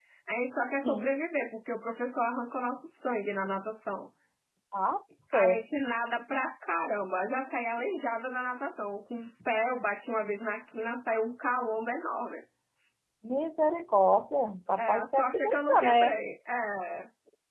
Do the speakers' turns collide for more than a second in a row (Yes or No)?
Yes